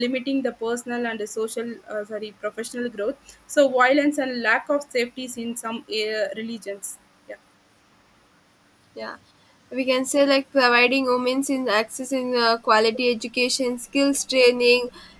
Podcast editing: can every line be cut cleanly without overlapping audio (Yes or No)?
Yes